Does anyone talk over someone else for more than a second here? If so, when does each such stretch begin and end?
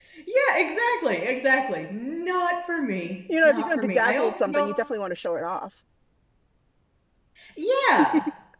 3.4-4.7

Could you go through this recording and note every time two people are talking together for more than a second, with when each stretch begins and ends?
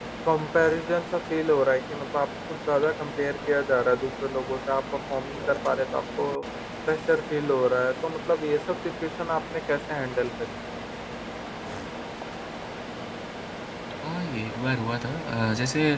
none

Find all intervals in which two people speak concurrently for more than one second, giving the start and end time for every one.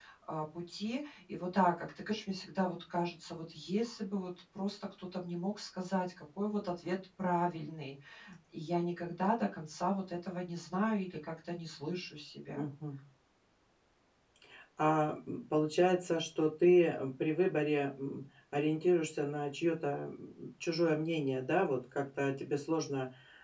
none

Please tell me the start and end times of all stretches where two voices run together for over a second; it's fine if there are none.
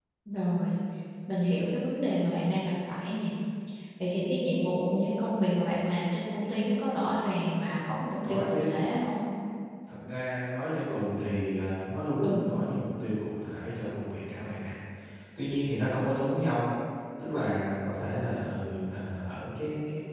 none

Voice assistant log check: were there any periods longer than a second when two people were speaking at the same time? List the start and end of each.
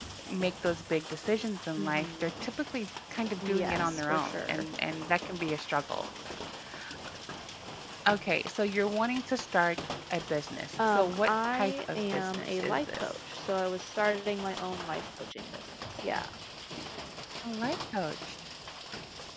3.4-4.7, 10.8-13.2

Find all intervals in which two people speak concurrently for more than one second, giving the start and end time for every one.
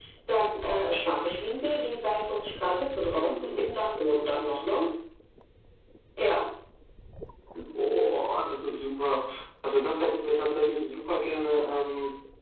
none

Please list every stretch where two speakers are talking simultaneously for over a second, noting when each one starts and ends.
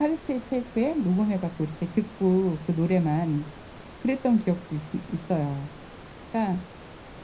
none

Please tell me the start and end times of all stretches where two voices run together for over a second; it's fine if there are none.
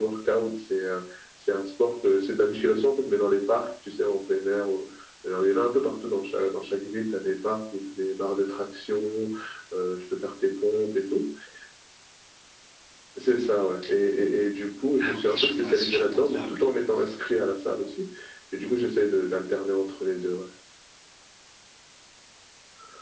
15.1-16.6

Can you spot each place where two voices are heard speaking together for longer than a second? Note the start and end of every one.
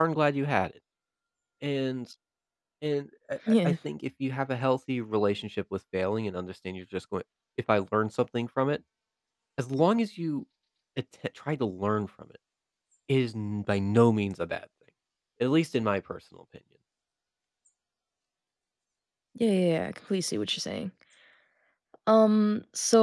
none

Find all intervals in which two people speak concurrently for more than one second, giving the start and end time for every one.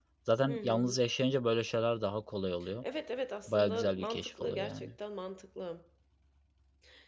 3.5-4.9

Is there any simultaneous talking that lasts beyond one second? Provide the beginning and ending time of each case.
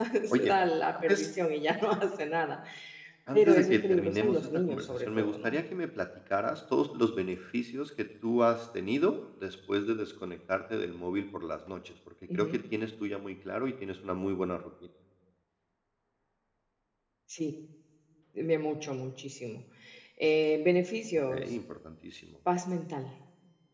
3.3-5.6

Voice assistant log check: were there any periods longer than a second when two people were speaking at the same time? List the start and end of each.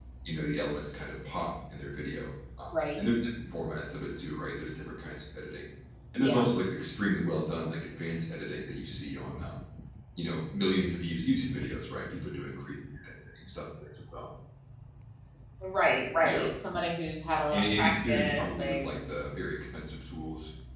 17.5-18.9

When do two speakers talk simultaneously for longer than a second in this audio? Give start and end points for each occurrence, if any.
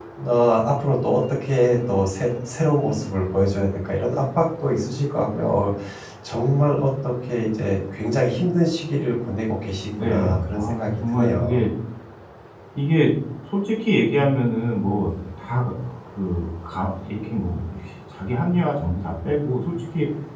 10.0-11.7

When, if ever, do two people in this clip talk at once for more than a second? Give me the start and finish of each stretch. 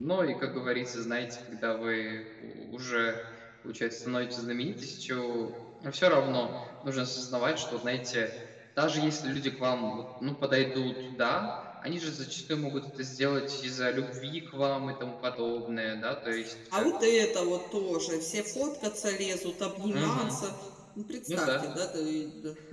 none

